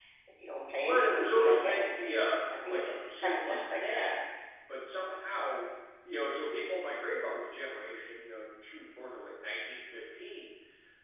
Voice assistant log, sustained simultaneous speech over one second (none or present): present